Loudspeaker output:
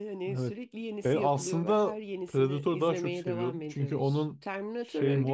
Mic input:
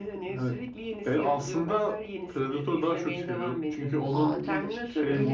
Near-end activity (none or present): present